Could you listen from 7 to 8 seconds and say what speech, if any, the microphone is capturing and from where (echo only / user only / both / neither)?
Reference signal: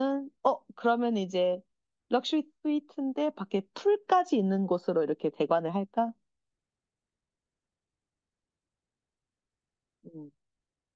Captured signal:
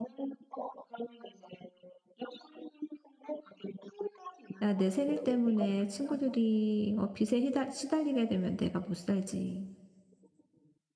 user only